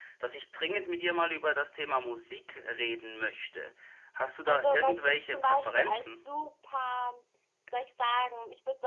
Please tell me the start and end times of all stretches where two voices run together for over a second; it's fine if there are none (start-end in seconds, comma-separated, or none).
4.5-6.3